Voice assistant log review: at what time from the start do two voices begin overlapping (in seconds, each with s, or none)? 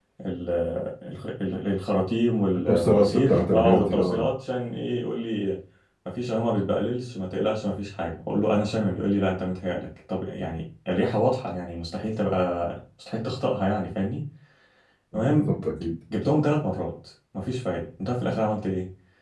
2.7 s